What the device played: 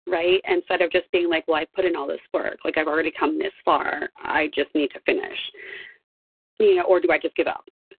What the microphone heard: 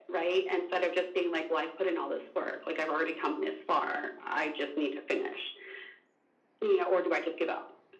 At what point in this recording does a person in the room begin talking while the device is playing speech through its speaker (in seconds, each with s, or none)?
none